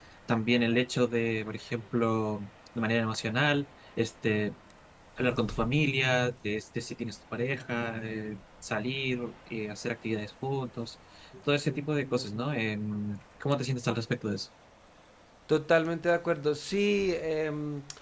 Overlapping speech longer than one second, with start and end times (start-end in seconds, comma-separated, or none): none